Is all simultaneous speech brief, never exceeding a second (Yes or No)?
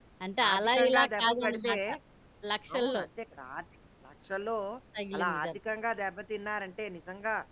No